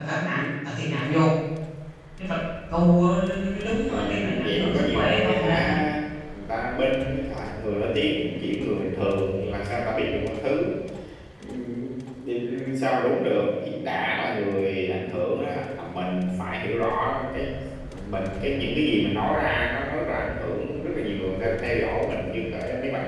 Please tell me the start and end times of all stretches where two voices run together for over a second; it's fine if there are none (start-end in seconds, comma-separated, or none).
3.8-5.8